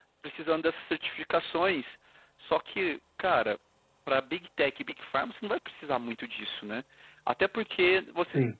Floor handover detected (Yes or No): No